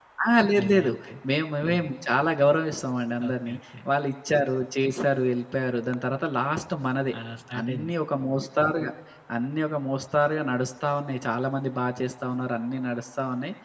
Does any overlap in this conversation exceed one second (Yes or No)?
No